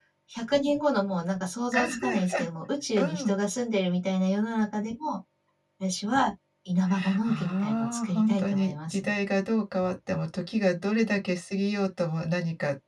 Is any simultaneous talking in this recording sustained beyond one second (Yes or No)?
Yes